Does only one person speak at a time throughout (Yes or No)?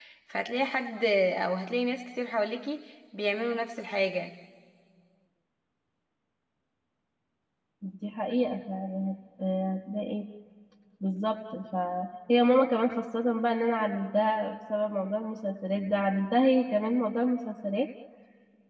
Yes